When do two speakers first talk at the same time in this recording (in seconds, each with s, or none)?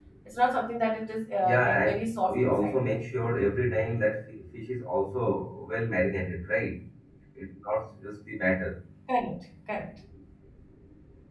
1.4 s